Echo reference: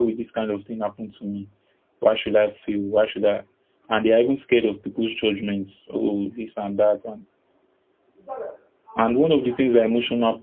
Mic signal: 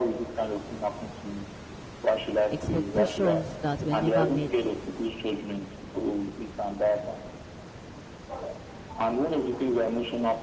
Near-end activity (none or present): present